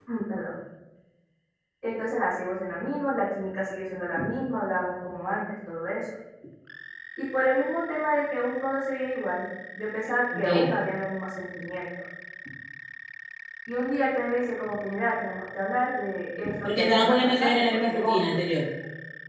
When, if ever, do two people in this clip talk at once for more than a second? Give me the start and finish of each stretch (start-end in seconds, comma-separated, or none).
16.6-18.4